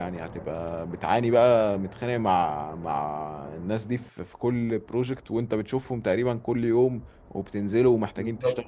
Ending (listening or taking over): listening